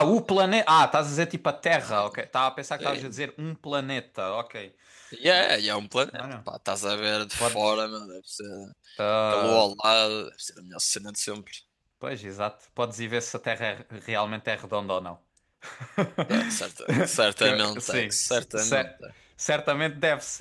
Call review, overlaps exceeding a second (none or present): present